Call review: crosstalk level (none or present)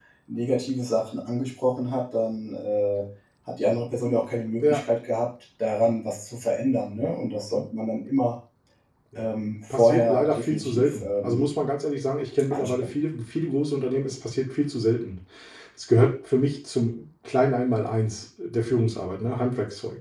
present